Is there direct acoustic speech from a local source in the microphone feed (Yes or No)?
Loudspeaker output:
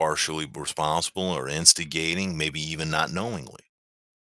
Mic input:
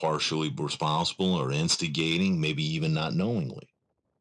No